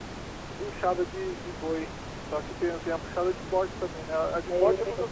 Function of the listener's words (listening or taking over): taking over